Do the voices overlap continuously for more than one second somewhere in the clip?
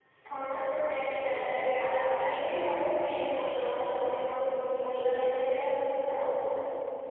Yes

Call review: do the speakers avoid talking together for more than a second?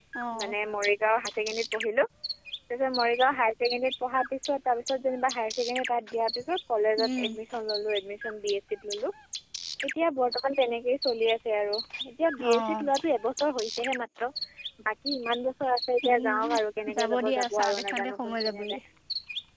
No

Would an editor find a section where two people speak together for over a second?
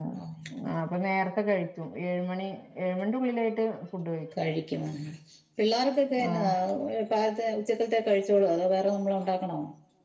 No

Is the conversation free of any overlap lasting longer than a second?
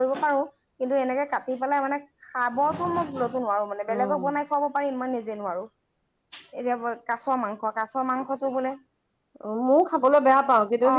Yes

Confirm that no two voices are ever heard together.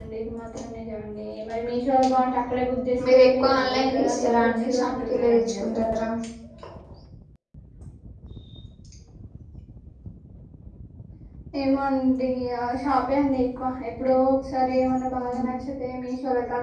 No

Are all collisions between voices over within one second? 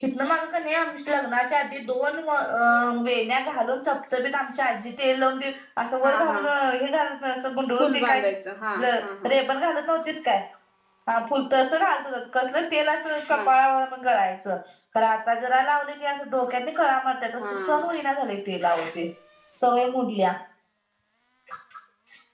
Yes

